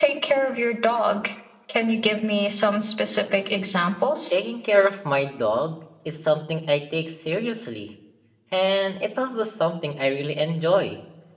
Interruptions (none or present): none